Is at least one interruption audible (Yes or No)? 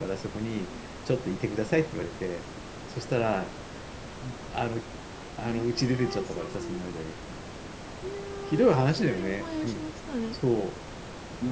Yes